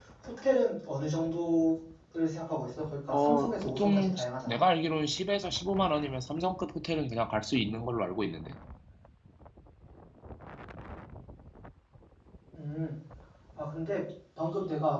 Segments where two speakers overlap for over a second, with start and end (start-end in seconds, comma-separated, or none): 3.1-4.6